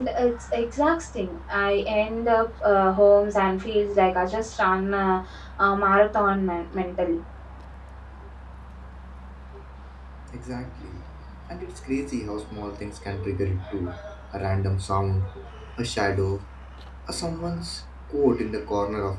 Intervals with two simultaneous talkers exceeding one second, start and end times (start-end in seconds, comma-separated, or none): none